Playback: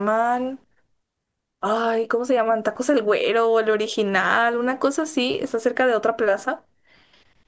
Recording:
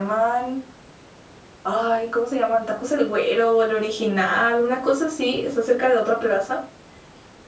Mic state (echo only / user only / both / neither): echo only